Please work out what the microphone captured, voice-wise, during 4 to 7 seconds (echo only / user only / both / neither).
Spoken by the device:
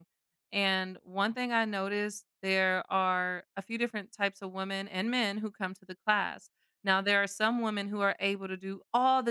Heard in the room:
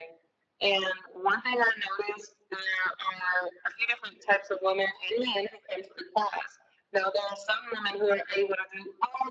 echo only